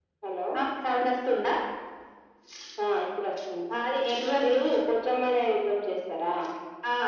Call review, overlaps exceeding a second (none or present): none